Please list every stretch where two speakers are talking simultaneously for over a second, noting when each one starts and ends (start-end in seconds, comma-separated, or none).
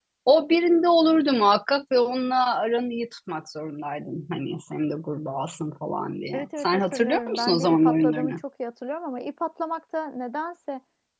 6.3-8.3